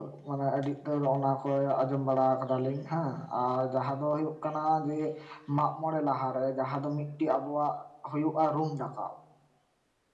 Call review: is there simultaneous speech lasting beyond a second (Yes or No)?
No